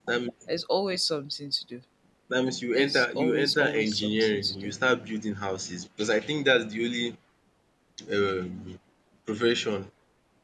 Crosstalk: present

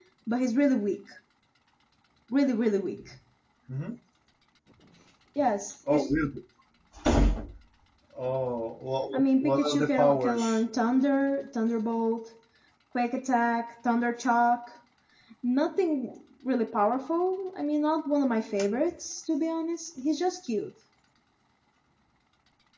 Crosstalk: present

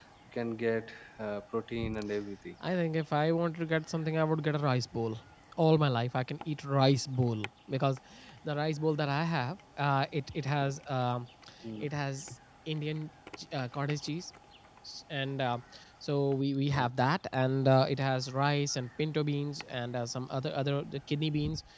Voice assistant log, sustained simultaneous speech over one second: none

